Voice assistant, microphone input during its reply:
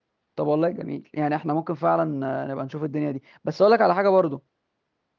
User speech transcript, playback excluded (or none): طب والله جميل يعني احنا ممكن فعلا آه، نبقى نشوف الدنيا دي بس اقول لك على حاجة برضو